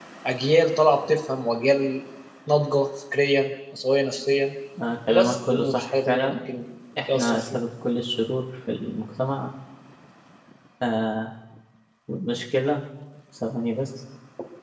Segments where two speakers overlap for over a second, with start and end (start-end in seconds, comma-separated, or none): 5.1-6.4